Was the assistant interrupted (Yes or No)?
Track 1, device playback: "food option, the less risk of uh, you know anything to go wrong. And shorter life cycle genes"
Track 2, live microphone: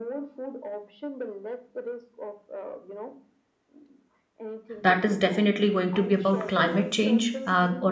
Yes